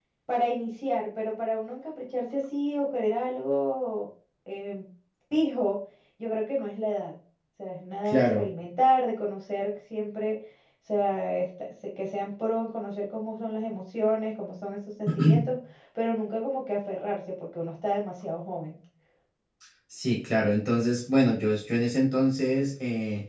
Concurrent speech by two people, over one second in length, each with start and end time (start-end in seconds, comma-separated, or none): none